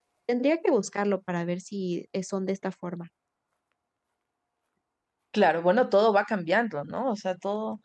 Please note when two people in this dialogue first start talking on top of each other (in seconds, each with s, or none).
none